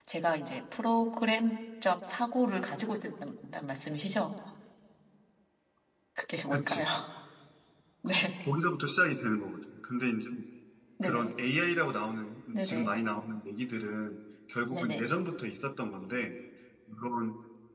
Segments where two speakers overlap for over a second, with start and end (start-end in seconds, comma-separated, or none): none